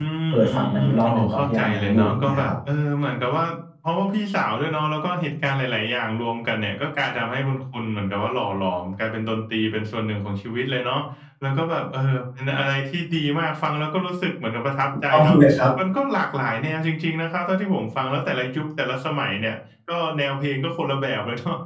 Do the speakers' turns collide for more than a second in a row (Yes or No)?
Yes